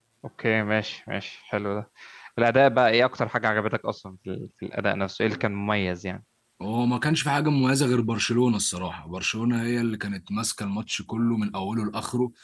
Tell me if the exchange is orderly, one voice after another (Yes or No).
Yes